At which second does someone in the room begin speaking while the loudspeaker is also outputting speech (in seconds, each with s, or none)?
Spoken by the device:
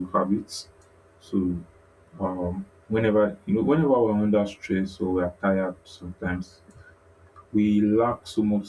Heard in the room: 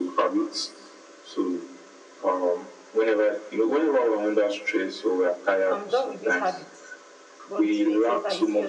5.7 s